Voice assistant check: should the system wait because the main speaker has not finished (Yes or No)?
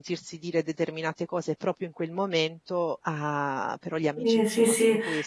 No